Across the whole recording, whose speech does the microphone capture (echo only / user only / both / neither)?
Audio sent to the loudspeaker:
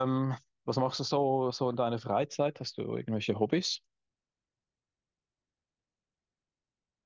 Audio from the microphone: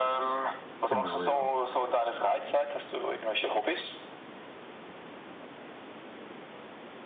both